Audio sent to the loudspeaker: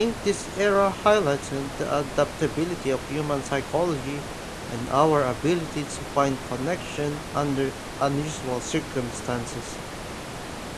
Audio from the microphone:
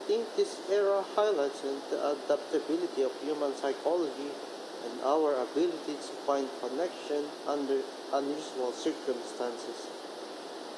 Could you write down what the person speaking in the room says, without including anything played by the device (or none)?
none